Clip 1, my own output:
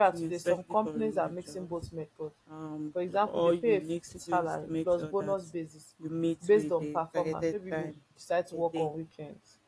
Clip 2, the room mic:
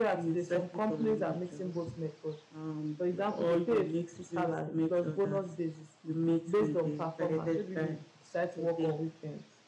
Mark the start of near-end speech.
none

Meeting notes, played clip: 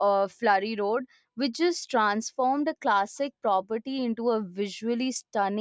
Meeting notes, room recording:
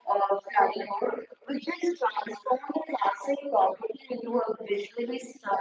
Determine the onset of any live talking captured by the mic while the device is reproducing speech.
none

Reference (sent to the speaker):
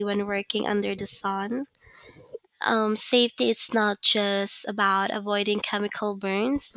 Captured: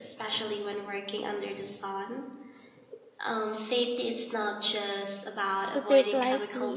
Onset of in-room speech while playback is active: 5.7 s

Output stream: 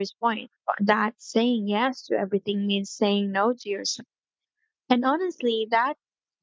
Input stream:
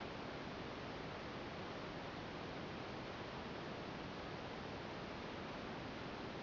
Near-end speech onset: none

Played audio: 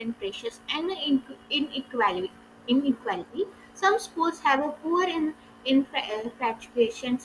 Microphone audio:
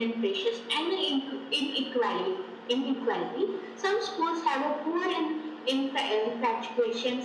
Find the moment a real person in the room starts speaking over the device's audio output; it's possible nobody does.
none

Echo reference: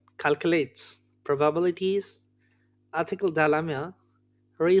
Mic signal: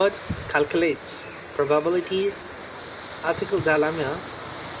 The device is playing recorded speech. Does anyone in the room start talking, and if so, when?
none

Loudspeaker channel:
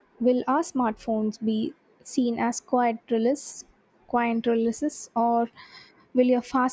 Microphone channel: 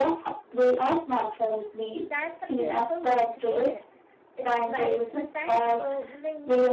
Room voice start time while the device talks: 2.0 s

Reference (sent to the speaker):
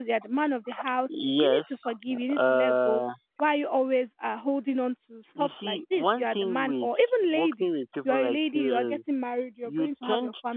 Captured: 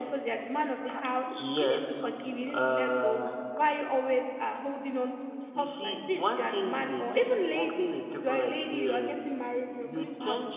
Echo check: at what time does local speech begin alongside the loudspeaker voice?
none

